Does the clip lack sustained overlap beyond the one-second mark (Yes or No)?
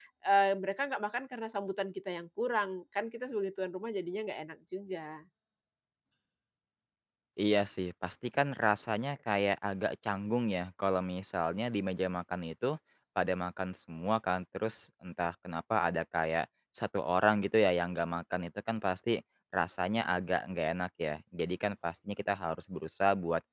Yes